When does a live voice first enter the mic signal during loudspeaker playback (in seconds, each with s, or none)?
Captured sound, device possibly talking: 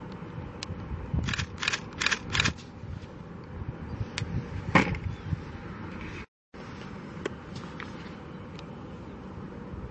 none